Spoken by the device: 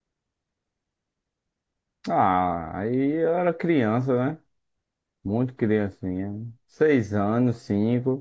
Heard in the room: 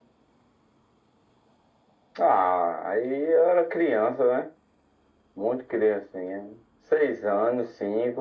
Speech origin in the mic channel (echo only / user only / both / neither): echo only